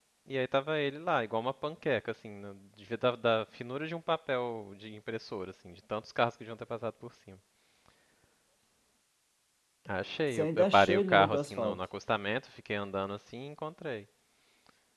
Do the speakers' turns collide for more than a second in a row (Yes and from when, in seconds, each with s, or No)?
Yes, from 10.3 s